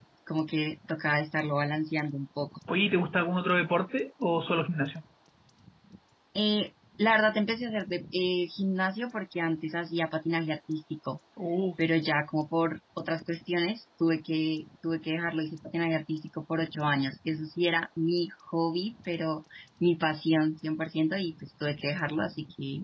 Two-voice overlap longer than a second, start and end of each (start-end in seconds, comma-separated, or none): none